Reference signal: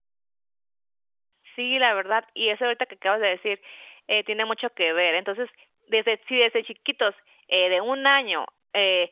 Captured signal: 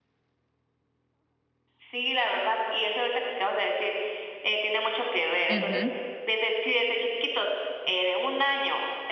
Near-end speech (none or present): present